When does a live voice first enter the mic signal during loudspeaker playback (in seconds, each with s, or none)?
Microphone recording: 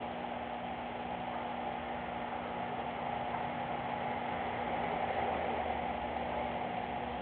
none